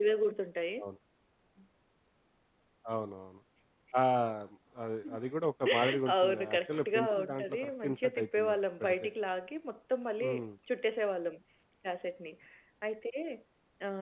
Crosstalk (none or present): present